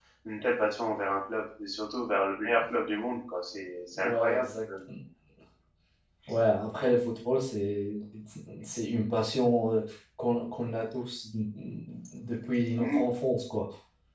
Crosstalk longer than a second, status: none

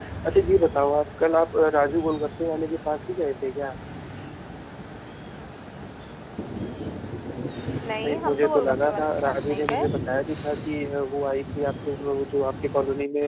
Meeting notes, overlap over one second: present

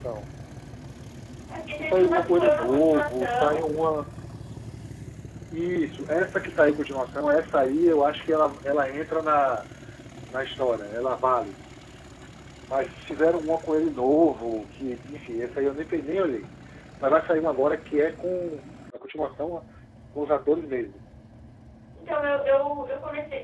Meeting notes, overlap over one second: present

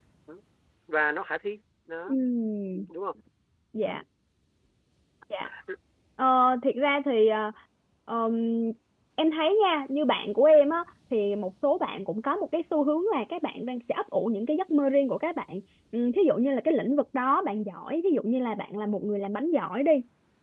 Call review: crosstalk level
none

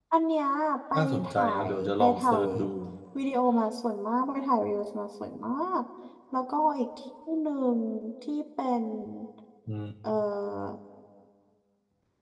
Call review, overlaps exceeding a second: present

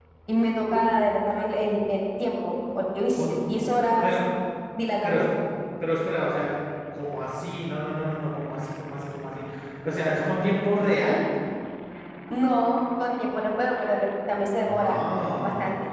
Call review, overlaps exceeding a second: none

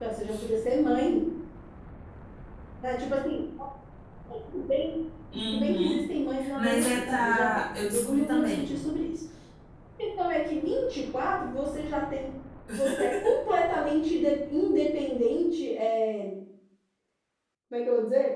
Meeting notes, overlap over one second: present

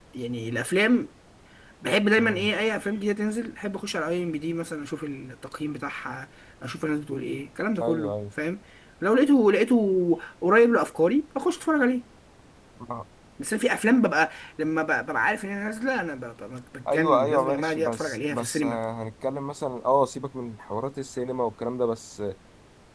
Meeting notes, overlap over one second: present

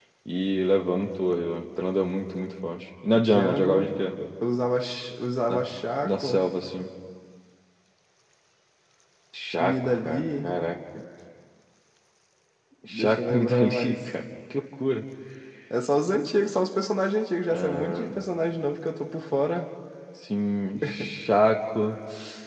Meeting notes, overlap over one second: present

